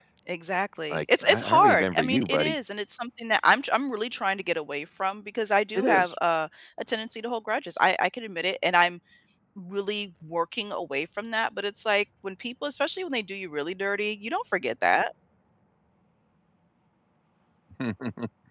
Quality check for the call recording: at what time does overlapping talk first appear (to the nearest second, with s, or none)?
1 s